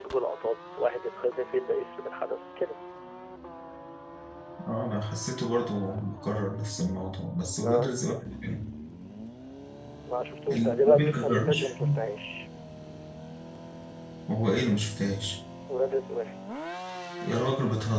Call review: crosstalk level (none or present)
present